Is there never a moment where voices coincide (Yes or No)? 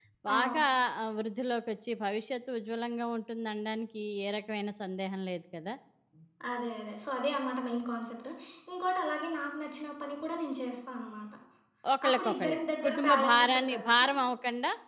No